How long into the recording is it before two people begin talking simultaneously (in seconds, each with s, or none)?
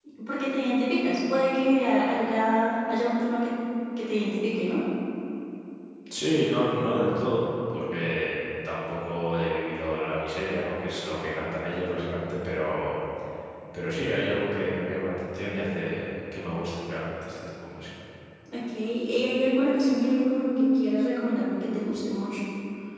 none